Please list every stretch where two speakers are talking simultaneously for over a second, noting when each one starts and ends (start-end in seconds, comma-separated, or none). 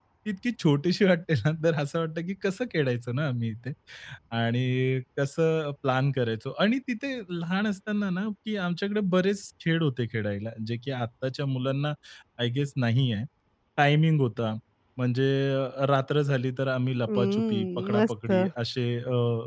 17.0-18.5